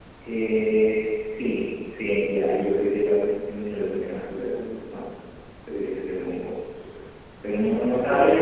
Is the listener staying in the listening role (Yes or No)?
Yes